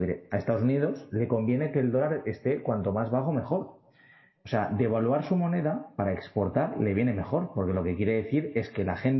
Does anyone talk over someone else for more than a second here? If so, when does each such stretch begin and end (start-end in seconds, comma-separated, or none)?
none